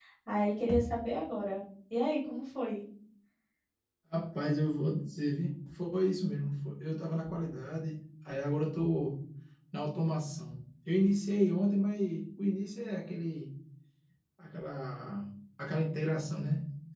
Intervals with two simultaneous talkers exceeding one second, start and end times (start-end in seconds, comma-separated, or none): none